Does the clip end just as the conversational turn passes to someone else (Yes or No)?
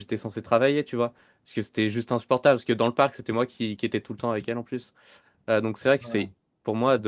No